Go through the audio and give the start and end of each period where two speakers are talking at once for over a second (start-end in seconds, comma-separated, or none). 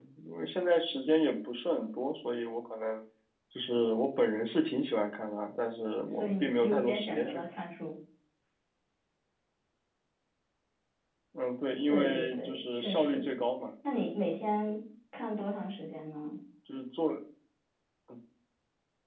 6.1-7.6, 11.9-13.3